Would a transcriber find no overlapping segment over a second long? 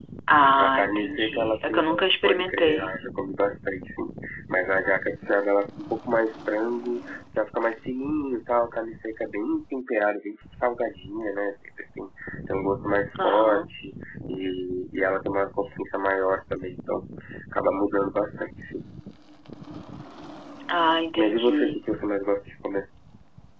No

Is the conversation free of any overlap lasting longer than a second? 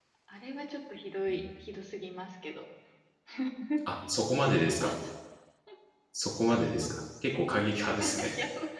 Yes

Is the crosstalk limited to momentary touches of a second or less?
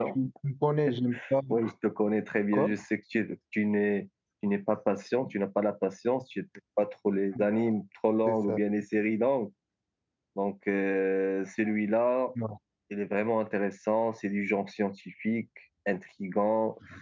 Yes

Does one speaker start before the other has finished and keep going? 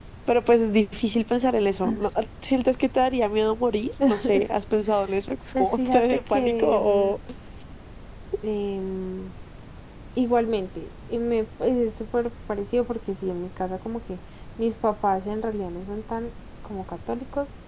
Yes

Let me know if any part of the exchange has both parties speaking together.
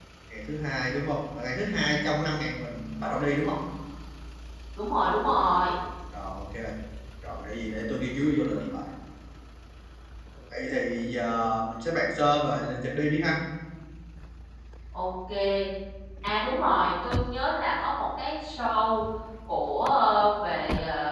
No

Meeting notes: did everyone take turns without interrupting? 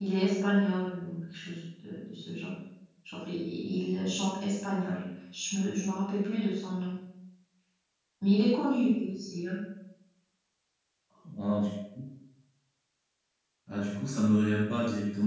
Yes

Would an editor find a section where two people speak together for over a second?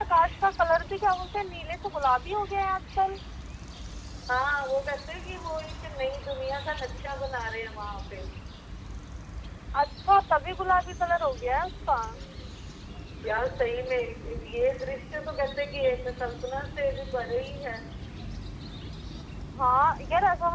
No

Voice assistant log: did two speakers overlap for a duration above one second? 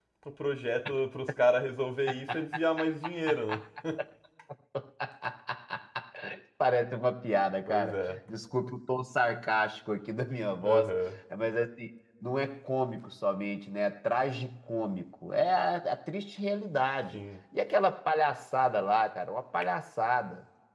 No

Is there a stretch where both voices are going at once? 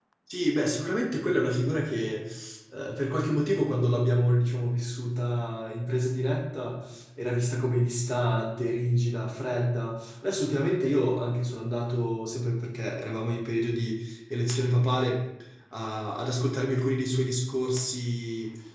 No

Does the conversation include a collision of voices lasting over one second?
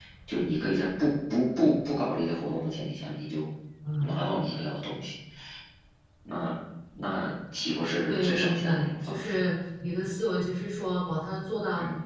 Yes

